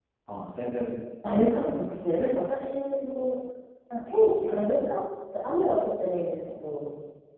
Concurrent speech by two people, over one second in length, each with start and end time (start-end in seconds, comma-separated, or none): 1.2-2.6